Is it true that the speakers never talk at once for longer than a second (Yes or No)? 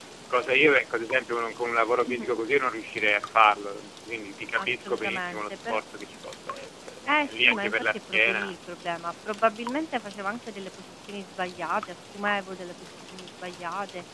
No